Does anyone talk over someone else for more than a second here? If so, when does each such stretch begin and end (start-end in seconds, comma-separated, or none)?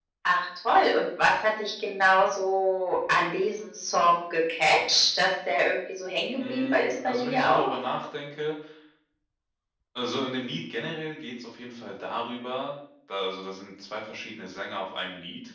6.4-7.7